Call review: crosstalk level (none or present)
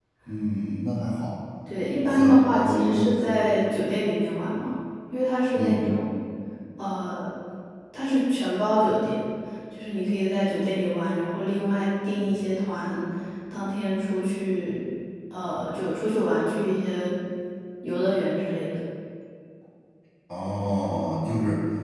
present